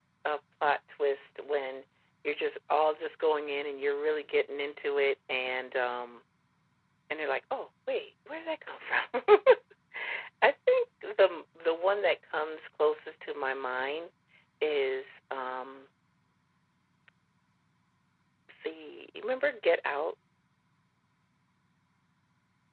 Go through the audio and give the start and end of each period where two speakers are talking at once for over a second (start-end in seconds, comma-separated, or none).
none